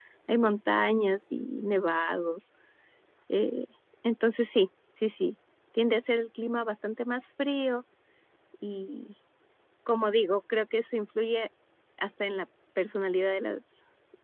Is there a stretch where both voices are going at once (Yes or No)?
No